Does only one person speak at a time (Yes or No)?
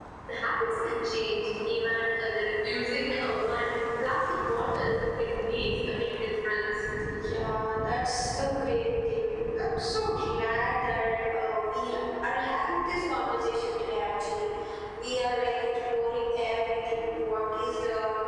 Yes